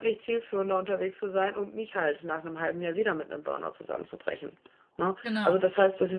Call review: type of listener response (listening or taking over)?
listening